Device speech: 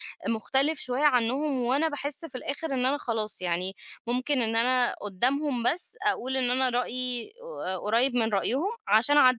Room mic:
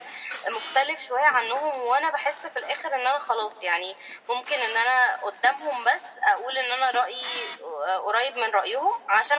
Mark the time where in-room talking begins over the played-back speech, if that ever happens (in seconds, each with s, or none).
none